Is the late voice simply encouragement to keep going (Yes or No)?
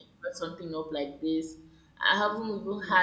Yes